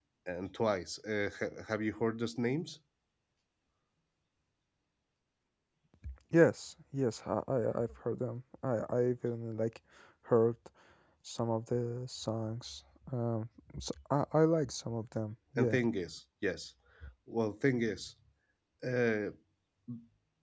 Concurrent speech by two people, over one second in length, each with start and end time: none

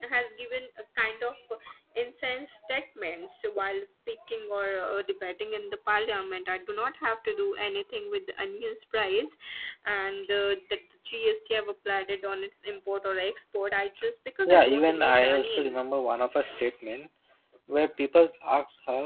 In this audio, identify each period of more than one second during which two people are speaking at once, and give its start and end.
14.4-15.8

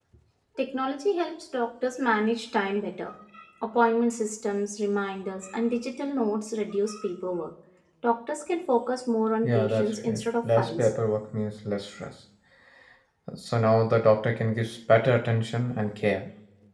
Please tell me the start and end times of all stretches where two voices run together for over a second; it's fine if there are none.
9.4-10.9

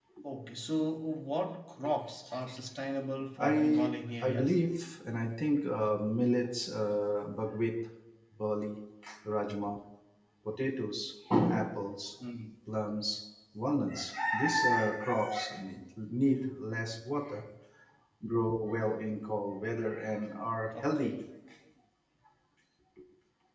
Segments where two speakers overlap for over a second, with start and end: 3.4-4.6

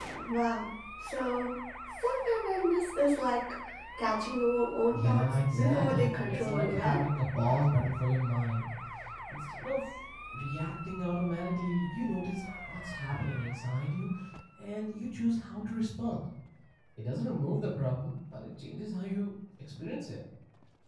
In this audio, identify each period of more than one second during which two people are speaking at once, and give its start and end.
4.9-7.0

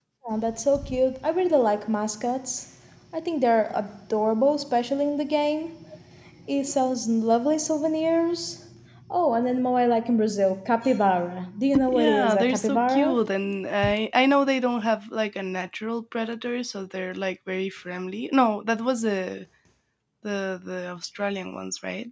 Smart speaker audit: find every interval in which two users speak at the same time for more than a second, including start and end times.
11.8-13.2

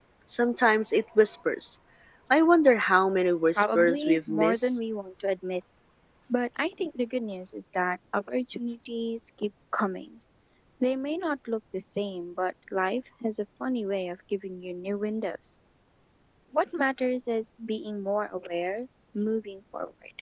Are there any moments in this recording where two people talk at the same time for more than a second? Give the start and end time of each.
3.5-4.8

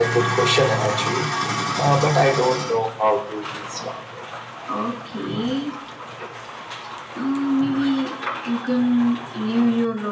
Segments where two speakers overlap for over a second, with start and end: none

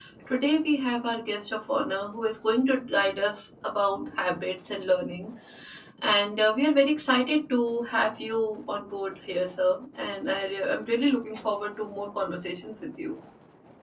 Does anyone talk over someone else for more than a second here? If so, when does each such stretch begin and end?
none

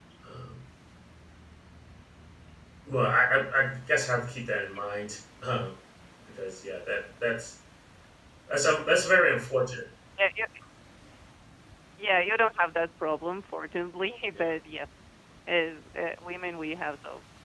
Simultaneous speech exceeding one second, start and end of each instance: none

